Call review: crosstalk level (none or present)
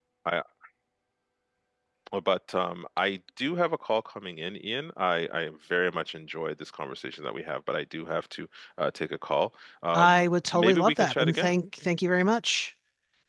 present